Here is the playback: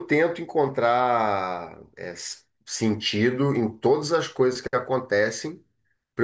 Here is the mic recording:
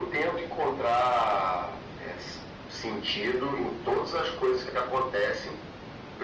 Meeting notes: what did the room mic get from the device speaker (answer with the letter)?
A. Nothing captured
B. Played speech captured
B